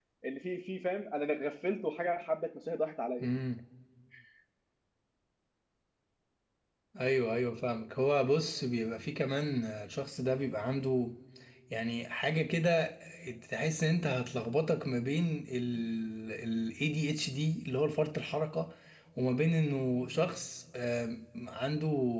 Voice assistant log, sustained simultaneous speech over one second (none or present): none